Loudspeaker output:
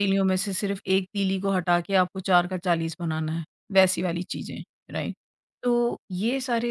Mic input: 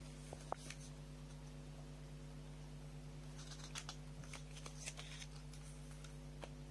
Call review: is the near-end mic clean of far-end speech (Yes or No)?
Yes